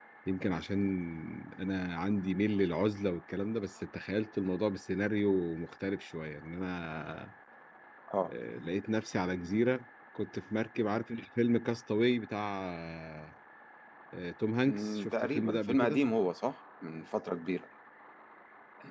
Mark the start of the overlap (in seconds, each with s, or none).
14.7 s